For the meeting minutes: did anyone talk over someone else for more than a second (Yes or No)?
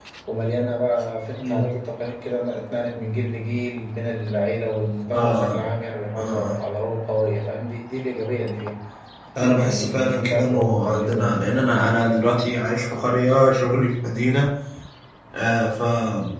Yes